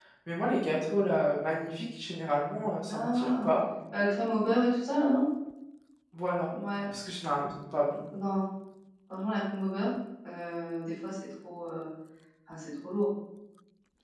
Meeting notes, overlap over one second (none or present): none